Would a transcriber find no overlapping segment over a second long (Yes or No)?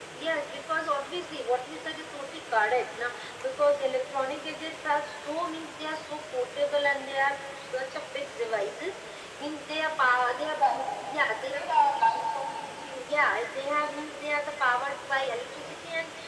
Yes